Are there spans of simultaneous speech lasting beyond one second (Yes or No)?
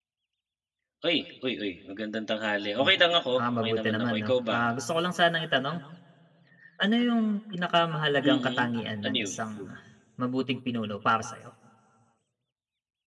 Yes